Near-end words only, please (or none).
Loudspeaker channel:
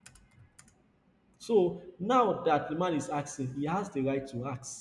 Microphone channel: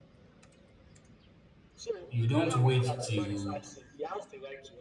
you don't wait till